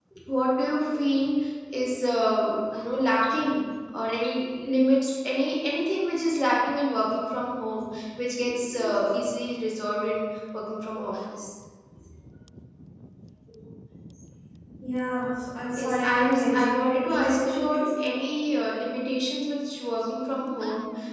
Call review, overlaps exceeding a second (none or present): present